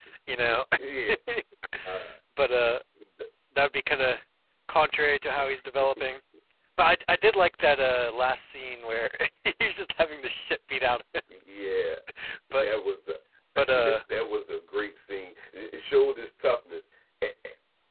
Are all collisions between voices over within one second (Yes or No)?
Yes